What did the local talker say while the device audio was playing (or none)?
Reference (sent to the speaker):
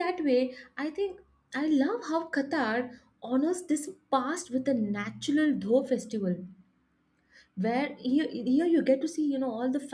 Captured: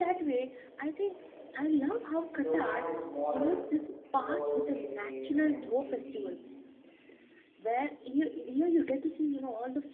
Doha is modern with all its cafes, and you'll see